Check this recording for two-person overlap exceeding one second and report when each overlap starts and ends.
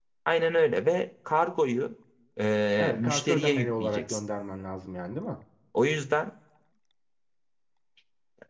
2.8-4.2

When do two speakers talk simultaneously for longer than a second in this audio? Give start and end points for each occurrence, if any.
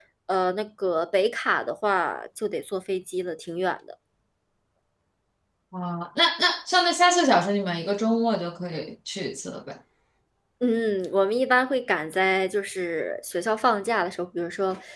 none

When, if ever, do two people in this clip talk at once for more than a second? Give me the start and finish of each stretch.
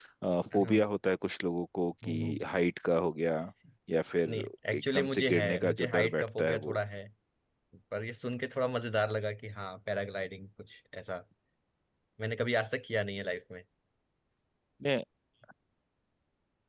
4.3-6.8

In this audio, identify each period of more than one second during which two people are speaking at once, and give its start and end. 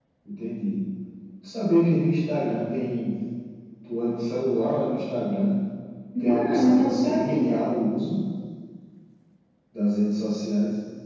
6.2-7.7

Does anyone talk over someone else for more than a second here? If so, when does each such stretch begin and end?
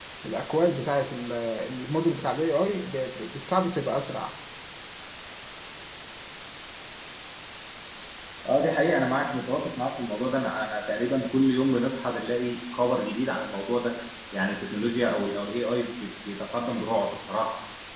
none

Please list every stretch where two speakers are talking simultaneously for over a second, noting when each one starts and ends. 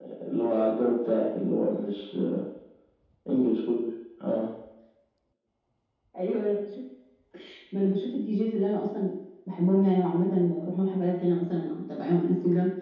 none

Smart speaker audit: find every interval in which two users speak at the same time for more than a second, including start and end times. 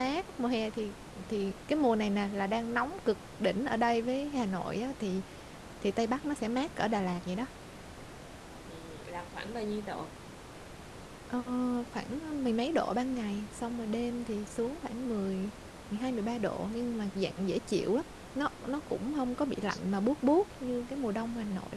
none

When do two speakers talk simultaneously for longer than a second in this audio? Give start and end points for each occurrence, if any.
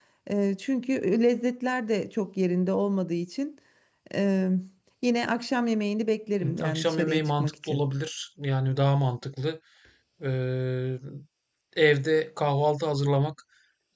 6.4-7.9

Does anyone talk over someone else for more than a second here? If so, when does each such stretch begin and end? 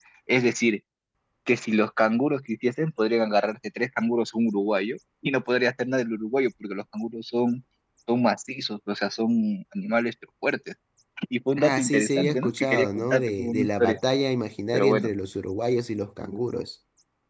11.6-14.0

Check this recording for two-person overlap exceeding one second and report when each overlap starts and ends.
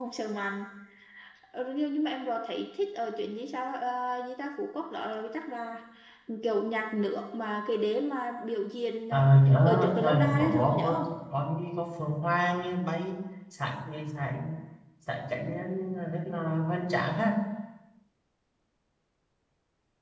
9.1-11.0

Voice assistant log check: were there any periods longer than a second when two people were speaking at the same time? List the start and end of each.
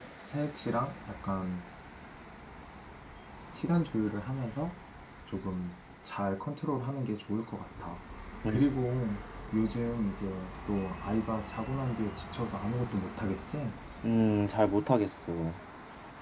none

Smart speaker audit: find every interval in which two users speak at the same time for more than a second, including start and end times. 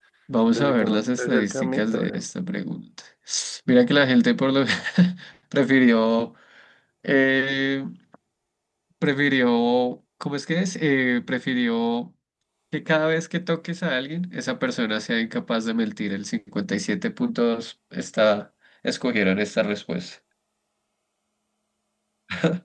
0.6-2.2

